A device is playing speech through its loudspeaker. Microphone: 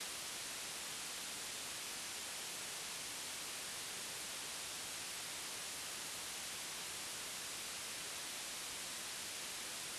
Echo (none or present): none